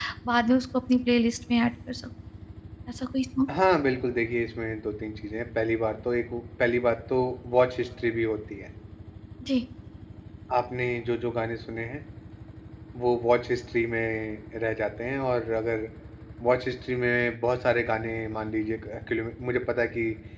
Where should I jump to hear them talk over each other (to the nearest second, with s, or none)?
none